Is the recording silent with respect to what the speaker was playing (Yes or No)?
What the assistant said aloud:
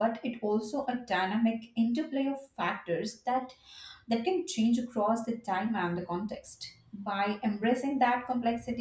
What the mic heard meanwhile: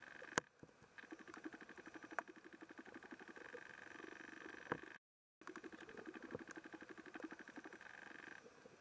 Yes